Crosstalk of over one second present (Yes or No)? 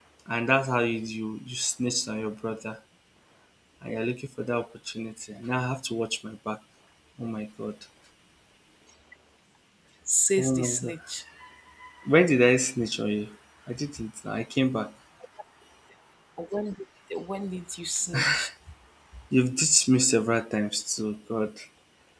No